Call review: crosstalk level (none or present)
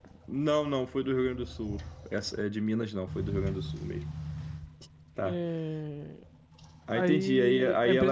present